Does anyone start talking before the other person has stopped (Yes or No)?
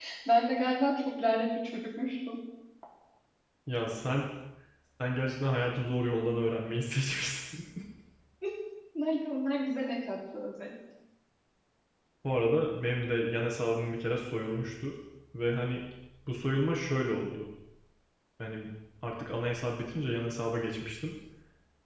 No